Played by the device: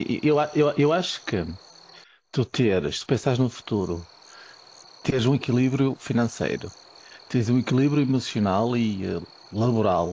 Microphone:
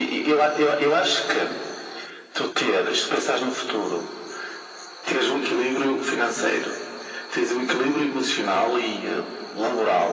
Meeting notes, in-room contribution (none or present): none